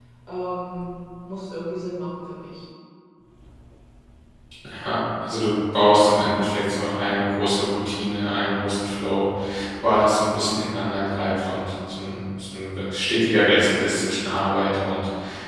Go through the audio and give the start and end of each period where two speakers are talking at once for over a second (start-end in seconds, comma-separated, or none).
none